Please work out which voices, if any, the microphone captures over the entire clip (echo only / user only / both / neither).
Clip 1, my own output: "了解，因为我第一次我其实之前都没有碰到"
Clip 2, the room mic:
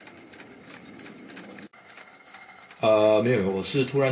user only